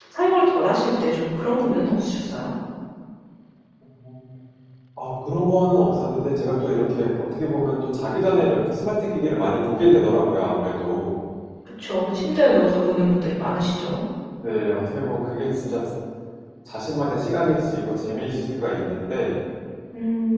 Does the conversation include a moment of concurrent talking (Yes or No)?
No